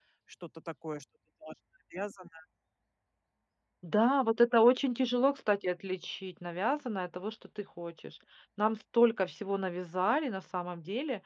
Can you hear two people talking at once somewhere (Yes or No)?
No